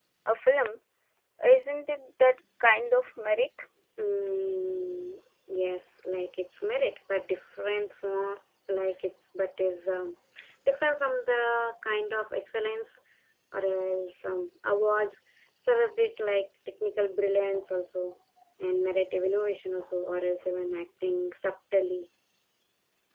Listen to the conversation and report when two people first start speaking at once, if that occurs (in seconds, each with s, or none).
none